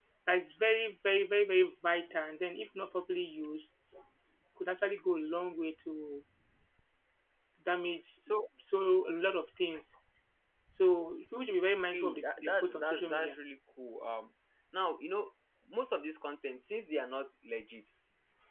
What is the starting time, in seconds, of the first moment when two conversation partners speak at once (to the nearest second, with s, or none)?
12 s